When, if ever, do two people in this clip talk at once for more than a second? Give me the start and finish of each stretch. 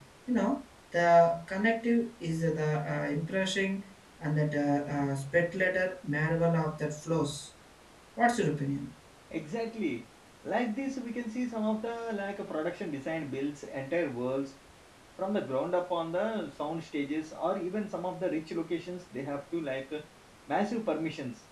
none

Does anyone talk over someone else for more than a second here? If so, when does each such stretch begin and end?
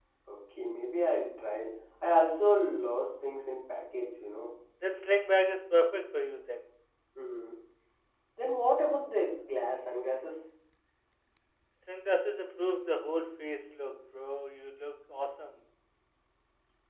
none

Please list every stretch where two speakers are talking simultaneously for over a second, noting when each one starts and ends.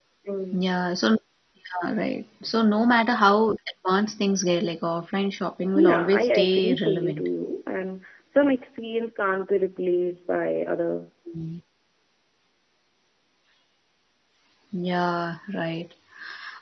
5.8-7.3

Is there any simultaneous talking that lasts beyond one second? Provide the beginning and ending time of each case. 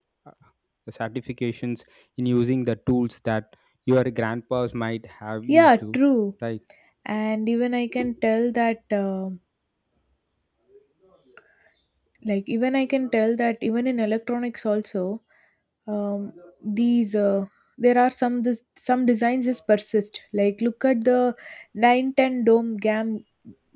none

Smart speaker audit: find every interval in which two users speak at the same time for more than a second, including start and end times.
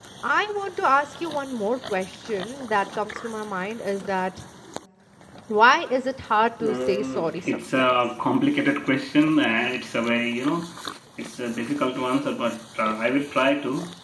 6.6-7.9

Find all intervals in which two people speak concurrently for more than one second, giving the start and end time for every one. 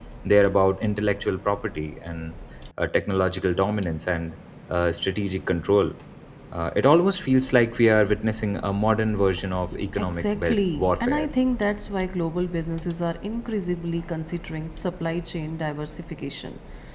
10.0-11.3

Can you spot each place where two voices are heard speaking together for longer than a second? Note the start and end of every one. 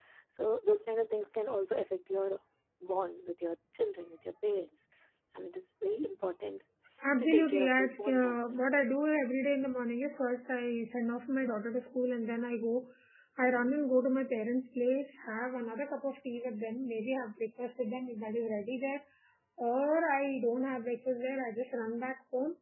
7.2-8.6

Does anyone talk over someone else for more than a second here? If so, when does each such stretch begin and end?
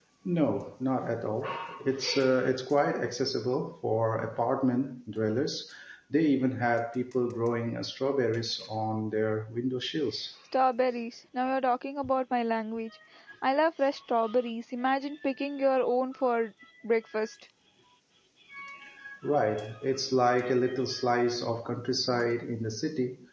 none

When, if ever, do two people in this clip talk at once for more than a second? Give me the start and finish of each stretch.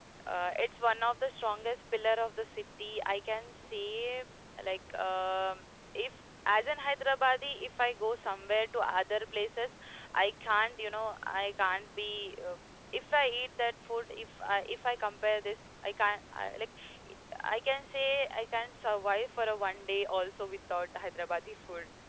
none

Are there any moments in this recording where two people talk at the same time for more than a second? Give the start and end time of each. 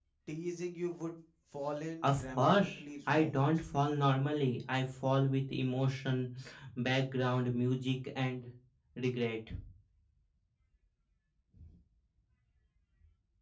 2.0-3.6

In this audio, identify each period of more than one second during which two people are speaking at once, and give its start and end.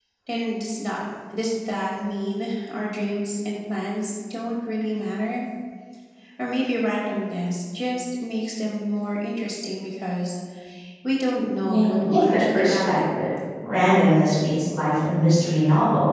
11.7-13.2

